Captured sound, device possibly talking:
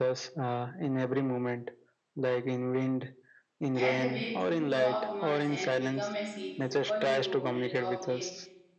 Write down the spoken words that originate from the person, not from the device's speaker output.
And the way two drops merge and become a se- superhero and droplet

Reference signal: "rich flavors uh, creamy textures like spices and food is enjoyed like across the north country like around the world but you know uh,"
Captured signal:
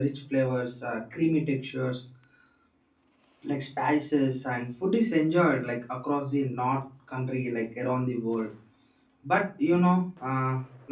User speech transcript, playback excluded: none

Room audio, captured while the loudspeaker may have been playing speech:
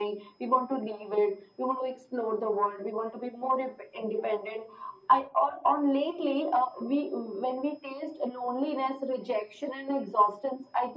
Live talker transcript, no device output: none

